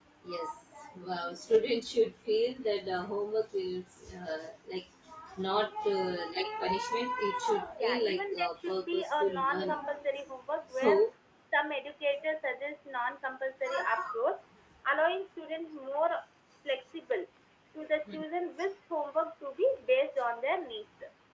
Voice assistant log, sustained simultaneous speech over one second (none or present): present